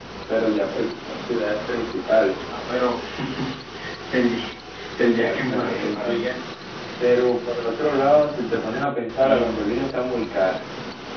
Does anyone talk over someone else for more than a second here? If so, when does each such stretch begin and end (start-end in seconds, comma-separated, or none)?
5.0-6.2